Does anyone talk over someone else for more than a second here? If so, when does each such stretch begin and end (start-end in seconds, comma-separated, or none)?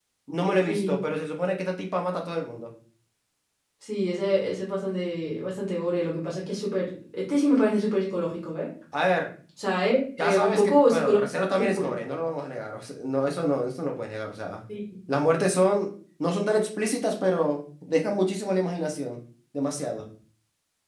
10.2-11.9